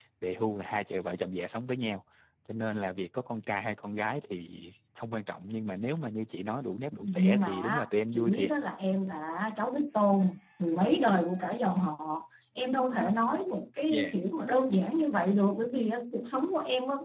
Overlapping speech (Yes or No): Yes